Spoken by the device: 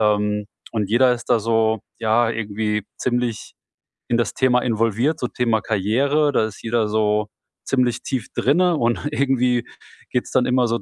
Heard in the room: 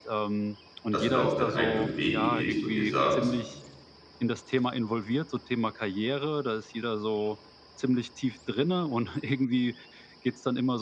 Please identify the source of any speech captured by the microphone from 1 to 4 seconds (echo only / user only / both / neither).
both